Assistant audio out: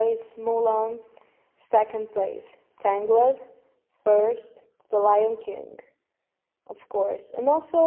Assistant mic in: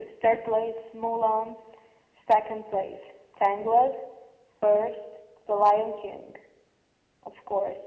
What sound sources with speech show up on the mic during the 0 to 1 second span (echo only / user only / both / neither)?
echo only